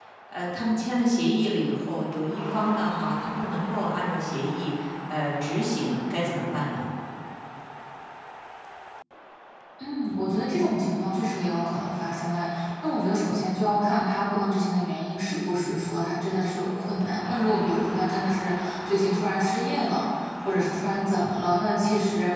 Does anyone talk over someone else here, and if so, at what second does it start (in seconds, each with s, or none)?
none